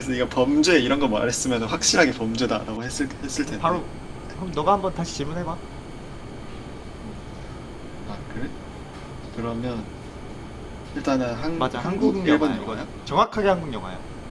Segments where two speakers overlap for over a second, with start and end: 11.6-12.8

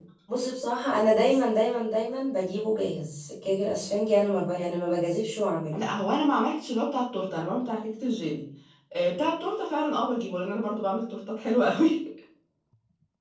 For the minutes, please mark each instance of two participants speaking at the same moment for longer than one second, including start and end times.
none

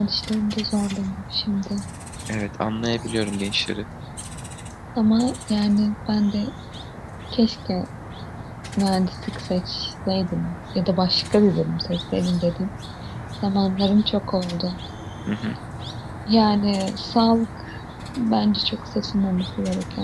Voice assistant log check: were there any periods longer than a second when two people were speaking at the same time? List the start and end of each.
none

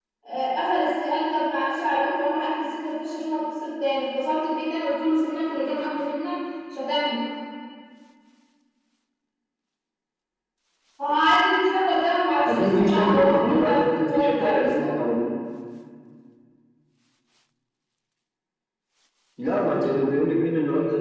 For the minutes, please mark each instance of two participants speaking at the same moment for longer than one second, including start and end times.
12.4-14.9

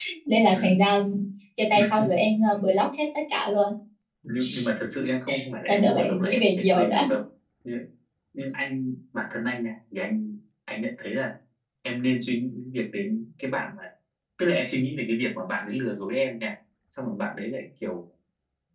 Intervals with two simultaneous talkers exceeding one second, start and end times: 5.7-7.0

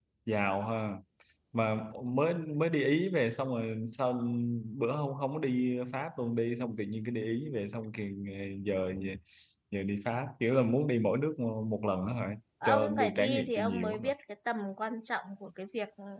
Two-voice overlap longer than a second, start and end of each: 12.7-14.1

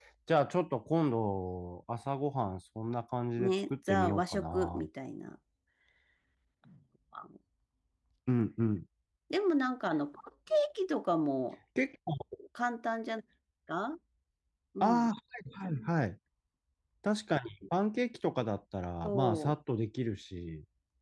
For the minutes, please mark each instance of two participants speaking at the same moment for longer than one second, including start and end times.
3.4-4.9

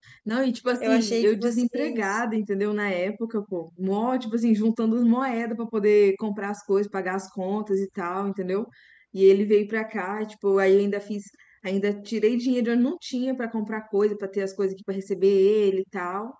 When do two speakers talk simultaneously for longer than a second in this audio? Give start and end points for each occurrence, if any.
0.8-2.2

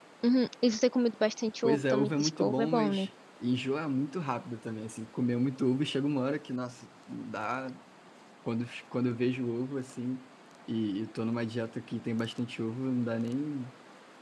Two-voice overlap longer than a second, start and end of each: 1.6-3.0

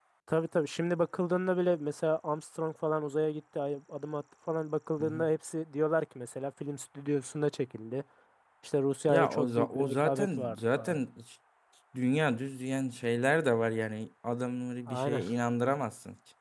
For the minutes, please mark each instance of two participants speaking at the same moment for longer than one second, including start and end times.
9.1-11.0

